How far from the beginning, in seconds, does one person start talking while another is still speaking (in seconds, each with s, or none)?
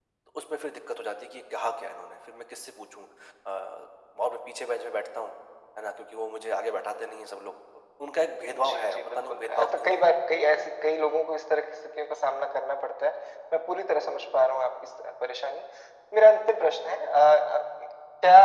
8.5 s